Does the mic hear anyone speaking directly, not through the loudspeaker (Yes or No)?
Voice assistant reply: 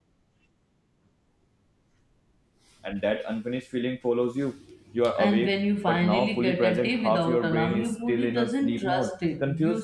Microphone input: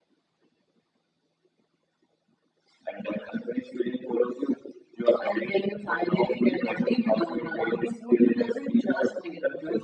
No